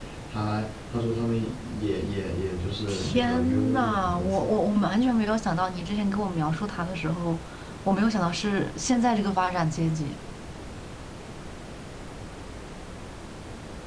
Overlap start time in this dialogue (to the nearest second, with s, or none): 3 s